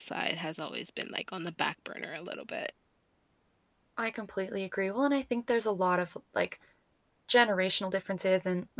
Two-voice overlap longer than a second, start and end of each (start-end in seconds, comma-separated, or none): none